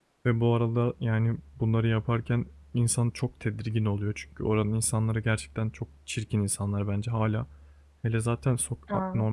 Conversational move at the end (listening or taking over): listening